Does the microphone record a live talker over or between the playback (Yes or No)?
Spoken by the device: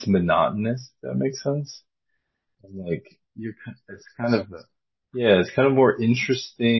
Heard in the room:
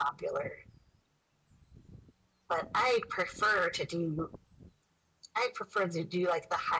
Yes